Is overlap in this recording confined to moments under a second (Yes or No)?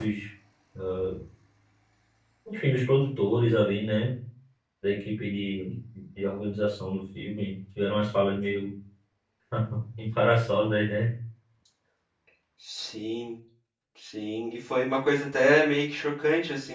Yes